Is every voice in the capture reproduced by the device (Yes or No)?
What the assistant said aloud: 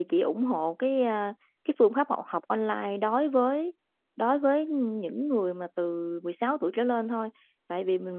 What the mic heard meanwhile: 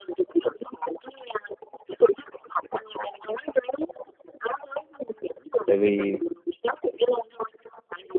No